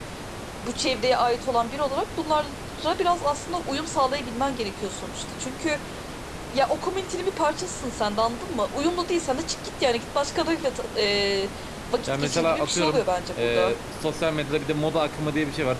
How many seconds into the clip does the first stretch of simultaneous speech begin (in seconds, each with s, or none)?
12.1 s